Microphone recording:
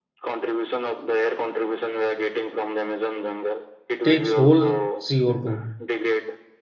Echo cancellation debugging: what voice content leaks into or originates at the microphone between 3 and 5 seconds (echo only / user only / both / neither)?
both